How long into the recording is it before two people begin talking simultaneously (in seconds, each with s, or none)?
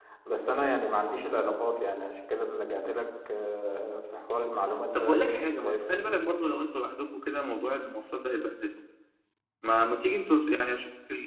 4.9 s